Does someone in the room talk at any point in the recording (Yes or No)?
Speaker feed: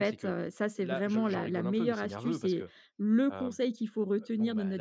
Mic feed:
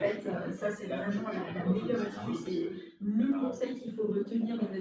No